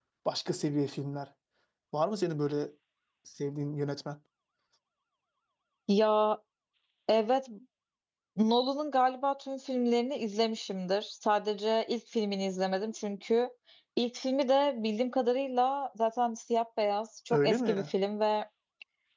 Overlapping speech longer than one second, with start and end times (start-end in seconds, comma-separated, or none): none